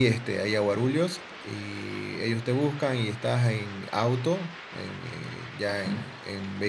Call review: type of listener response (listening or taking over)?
listening